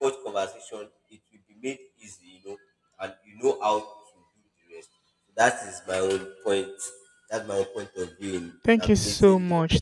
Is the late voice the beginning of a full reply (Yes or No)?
Yes